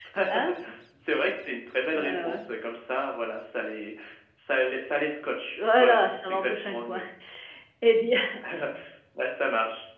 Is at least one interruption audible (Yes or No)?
Yes